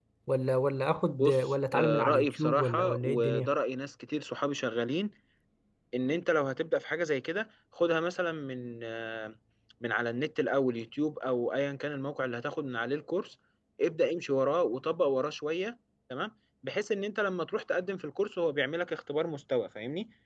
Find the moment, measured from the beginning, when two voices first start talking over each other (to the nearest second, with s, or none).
1 s